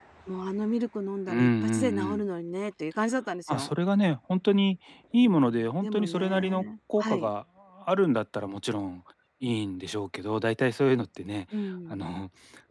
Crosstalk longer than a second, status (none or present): present